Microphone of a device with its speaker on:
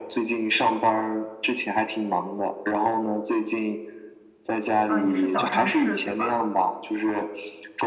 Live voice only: 嗯，也是小城市，对吧？

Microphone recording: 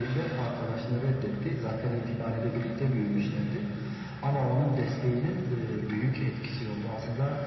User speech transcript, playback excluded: Hı hı.

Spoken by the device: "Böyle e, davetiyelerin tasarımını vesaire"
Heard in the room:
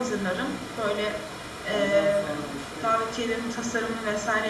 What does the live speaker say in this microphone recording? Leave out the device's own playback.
Ondan sonra da işte

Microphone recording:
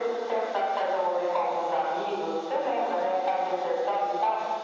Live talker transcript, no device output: none

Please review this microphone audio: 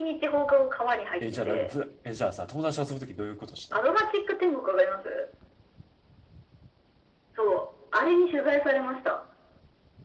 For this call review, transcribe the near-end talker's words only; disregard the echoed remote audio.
え、じゃあなんかふ、え、じゃあさ、友達と遊ぶときどういうことした

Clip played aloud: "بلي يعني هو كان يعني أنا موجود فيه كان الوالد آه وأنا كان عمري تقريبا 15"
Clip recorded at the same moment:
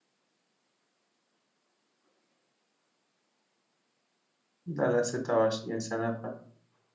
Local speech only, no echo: لا لا 26 سنه

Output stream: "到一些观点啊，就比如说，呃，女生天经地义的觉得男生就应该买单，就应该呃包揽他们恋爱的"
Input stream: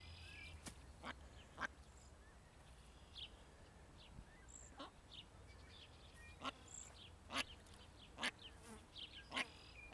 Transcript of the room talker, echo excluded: none

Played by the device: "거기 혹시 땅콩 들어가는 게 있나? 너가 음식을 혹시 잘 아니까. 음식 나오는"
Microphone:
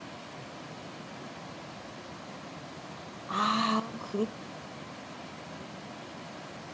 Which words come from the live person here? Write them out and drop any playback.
아, 그렇다.

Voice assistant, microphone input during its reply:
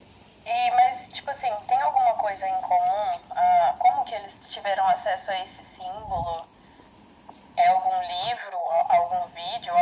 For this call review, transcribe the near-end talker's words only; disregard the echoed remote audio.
none

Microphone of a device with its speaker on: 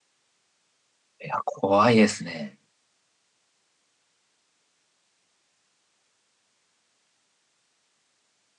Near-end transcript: いや、怖いですね。

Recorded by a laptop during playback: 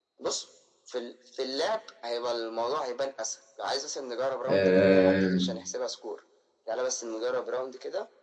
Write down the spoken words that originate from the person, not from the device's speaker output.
آه...

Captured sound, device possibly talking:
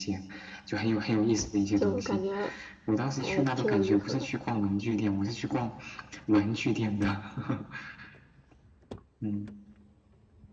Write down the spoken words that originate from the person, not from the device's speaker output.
就感觉还挺有意思的。

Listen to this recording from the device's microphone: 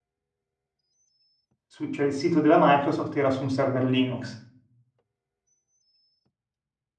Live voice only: su- cioè il sito della Microsoft era su un server Linux.

